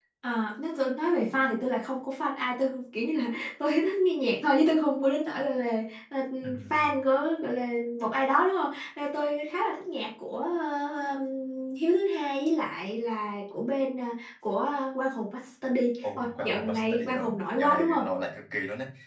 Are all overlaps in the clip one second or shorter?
No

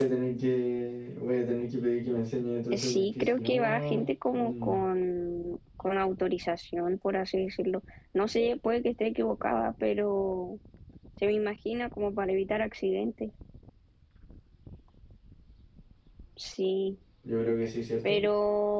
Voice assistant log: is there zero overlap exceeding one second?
No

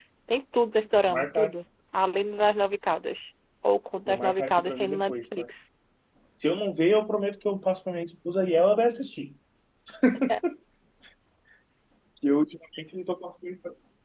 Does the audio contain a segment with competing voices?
Yes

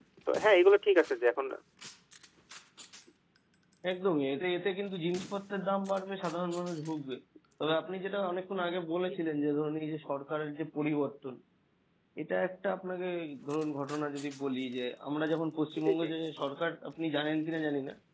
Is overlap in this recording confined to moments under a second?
Yes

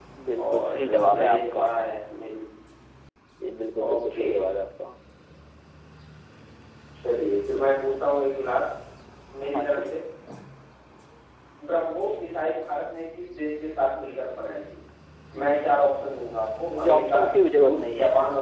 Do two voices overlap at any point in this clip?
Yes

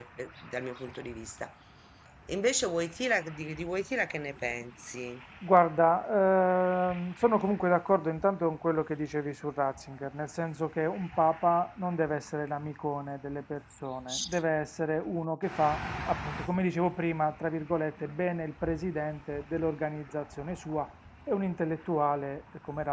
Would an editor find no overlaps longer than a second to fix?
Yes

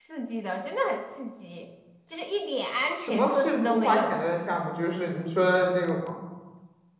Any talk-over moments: Yes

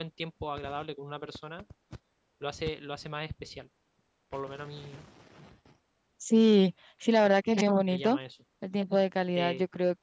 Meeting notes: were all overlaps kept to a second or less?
Yes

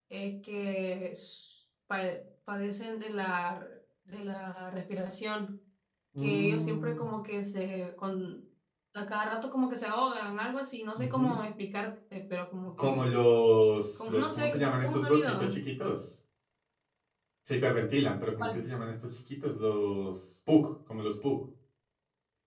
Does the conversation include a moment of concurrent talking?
Yes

